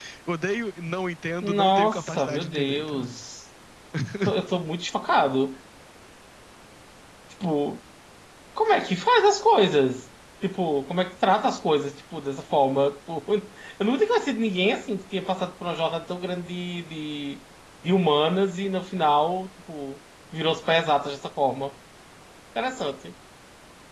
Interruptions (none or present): present